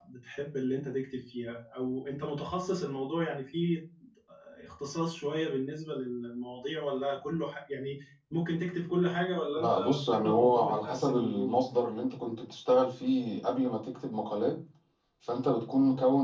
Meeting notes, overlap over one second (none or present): present